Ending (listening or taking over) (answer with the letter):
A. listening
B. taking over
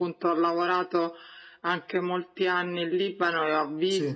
A